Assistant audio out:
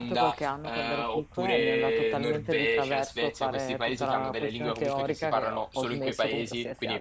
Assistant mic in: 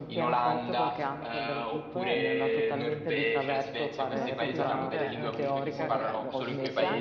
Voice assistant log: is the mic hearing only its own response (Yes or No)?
No